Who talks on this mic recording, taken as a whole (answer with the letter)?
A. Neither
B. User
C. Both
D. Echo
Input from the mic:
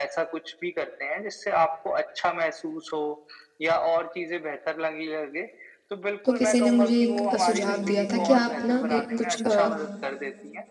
C